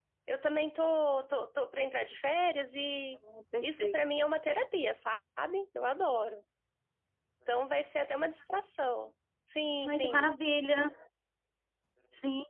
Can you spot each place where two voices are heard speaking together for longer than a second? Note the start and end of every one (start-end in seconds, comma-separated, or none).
none